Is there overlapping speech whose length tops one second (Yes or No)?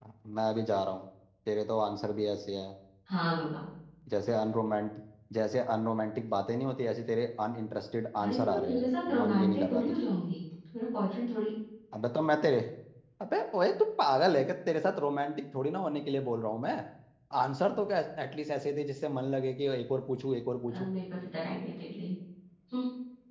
Yes